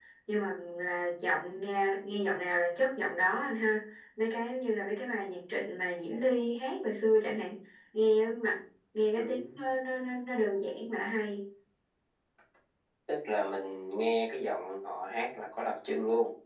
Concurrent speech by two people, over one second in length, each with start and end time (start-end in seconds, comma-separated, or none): none